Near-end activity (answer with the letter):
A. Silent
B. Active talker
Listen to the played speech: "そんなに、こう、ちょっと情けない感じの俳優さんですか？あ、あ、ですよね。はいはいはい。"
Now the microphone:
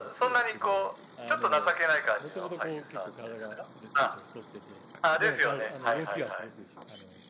B